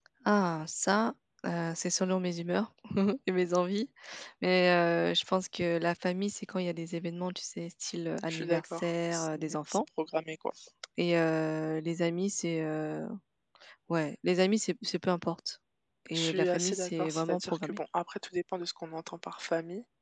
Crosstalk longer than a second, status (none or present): present